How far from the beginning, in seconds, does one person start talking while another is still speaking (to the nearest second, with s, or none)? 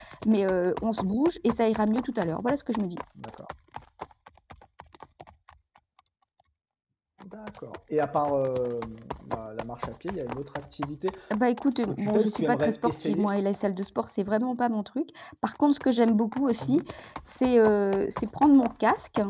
12 s